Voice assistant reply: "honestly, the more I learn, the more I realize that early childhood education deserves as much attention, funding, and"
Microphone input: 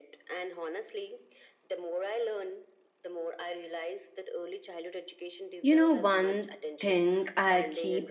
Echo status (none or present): present